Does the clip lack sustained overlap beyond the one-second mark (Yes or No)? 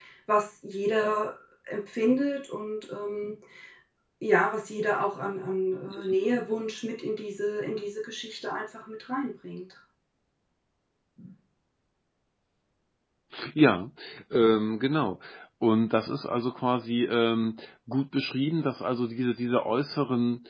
Yes